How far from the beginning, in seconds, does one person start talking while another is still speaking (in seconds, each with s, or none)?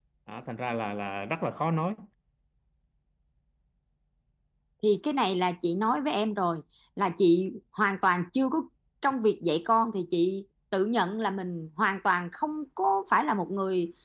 none